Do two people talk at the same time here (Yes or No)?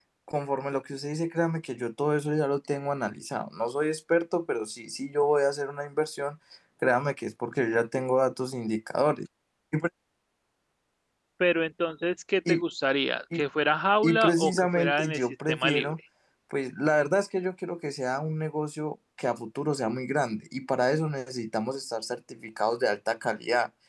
Yes